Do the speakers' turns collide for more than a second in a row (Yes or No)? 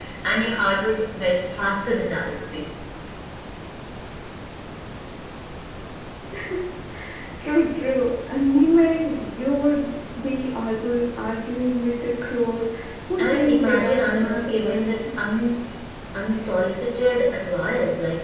Yes